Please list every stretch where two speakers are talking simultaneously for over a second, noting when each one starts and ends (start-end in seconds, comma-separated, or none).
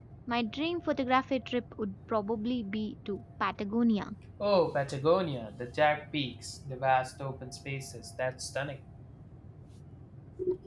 none